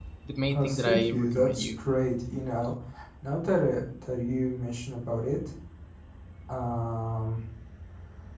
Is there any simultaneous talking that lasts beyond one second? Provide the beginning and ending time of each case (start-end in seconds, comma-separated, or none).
0.5-1.8